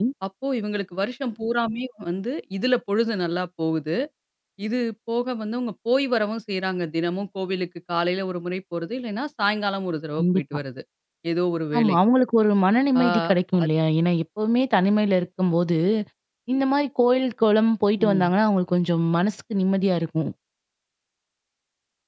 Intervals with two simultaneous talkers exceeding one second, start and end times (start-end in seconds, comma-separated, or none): none